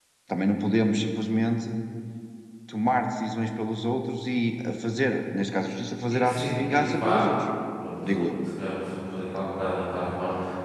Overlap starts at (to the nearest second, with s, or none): 6 s